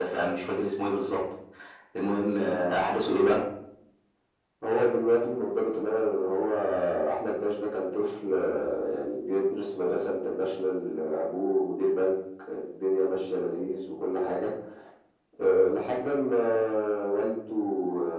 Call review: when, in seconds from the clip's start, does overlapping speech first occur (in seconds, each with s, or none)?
none